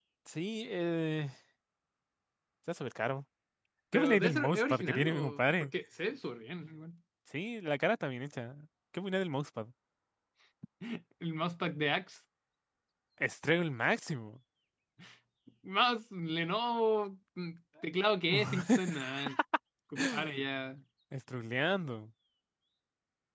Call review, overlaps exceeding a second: present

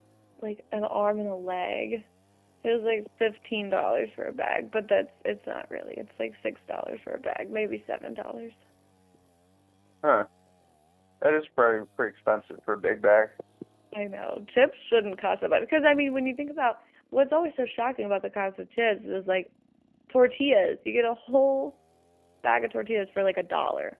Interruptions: none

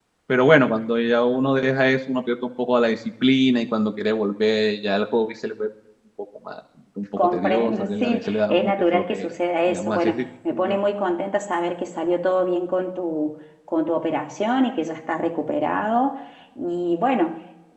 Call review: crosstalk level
present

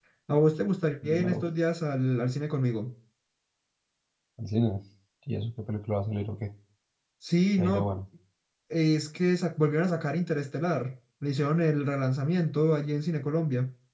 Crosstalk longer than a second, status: none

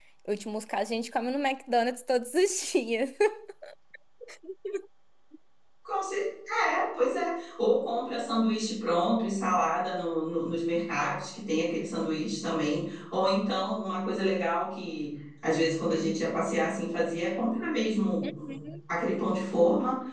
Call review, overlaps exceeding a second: none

